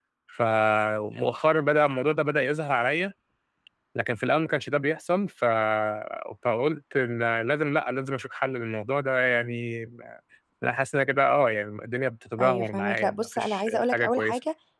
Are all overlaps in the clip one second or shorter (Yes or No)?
No